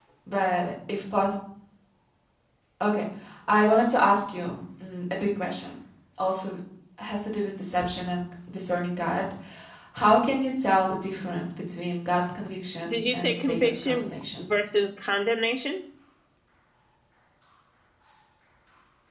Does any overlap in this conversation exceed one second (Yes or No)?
Yes